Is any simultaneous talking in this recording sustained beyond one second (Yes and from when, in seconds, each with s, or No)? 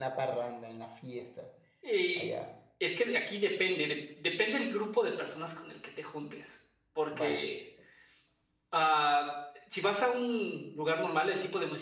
No